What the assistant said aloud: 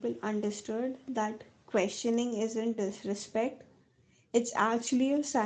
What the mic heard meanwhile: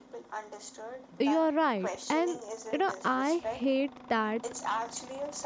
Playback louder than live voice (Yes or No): No